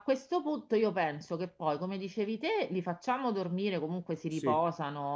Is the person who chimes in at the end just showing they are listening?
Yes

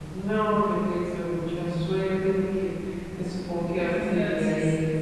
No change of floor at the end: Yes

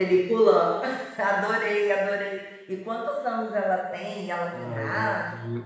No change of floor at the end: No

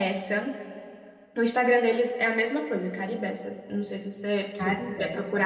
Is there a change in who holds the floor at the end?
No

